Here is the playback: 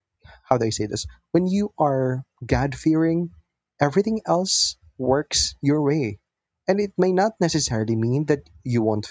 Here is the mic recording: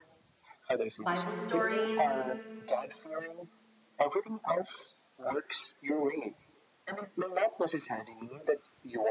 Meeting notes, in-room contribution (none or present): present